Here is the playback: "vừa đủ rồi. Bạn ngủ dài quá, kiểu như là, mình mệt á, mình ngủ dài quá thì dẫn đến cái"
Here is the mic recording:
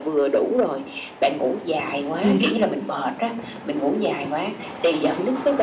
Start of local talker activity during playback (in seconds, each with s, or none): 2.2 s